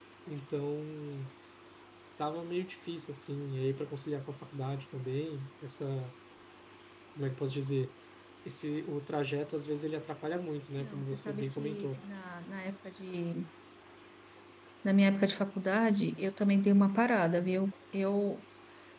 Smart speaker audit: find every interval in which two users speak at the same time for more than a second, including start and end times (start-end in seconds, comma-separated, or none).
10.8-12.0